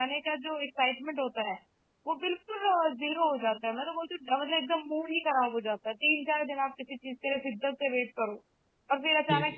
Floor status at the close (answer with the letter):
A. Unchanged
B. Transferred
A